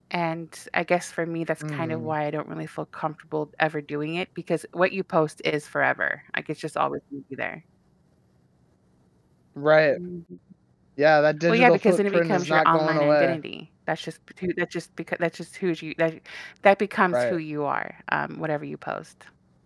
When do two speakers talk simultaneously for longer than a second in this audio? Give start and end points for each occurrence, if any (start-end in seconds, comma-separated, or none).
11.5-13.4